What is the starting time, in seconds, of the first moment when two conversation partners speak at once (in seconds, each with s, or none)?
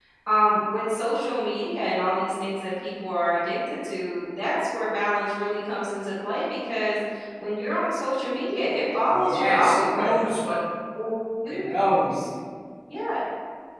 9.1 s